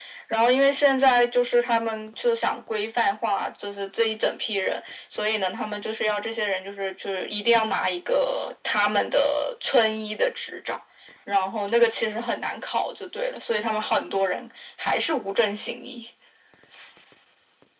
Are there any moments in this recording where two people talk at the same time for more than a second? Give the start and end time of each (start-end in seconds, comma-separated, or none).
none